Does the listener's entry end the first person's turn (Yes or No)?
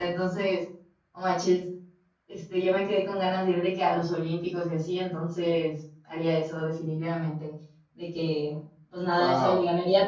No